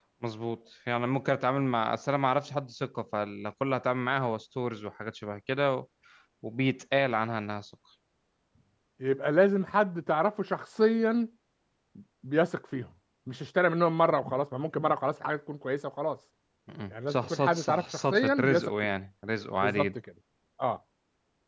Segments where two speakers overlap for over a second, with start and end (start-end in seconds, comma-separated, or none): 16.9-18.7